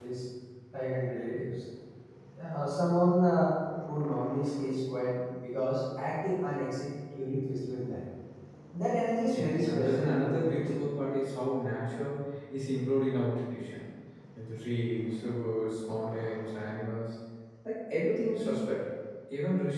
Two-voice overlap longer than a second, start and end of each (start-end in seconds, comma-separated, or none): 9.3-10.8